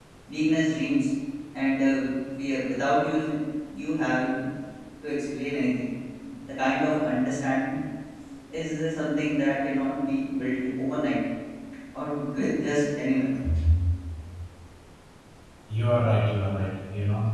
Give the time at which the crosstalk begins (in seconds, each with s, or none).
none